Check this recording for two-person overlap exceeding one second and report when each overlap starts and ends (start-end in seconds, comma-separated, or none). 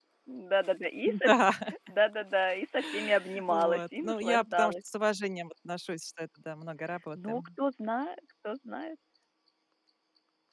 3.5-4.7